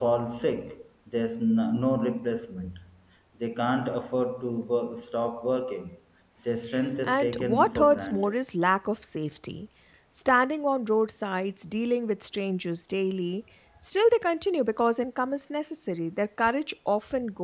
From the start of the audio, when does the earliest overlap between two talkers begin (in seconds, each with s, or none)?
7.0 s